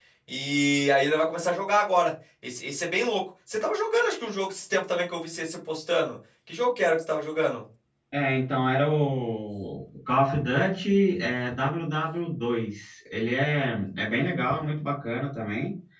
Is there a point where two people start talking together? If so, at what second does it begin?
none

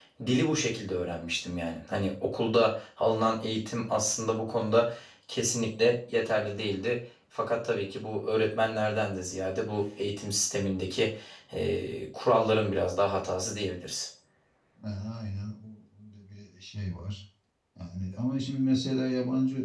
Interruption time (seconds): none

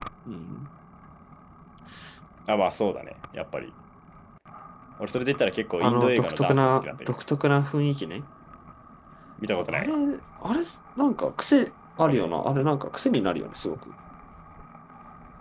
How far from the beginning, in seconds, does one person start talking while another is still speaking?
5.8 s

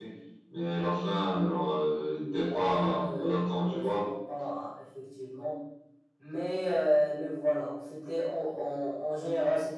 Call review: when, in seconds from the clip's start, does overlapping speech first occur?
1.9 s

